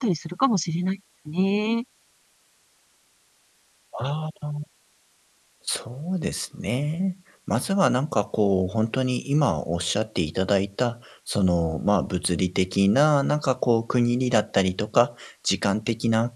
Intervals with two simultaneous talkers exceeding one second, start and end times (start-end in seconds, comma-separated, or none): none